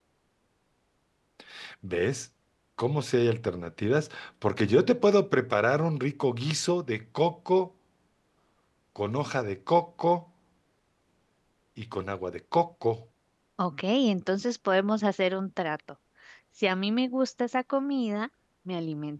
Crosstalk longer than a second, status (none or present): none